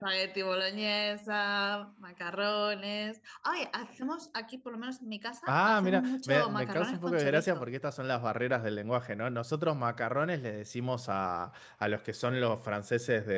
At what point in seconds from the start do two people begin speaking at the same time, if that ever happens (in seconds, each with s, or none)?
5.5 s